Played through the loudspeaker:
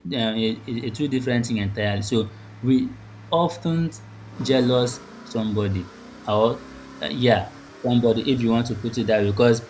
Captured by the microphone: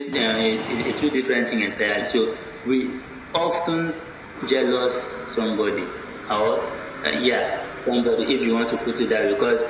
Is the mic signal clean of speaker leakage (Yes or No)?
No